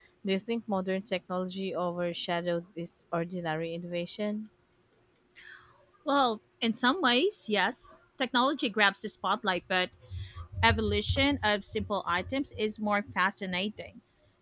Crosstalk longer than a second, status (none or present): none